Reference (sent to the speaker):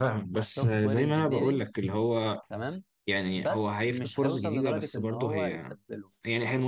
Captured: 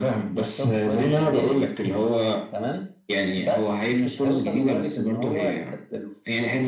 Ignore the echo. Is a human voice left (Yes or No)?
No